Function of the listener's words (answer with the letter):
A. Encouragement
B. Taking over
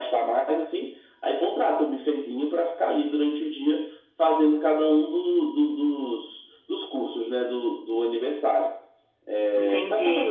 B